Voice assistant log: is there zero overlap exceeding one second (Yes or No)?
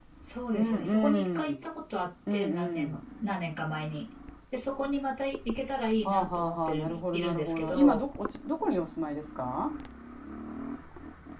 No